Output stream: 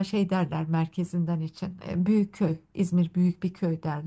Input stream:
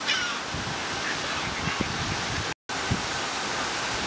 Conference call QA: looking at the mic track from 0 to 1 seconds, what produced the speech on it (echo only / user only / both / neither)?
neither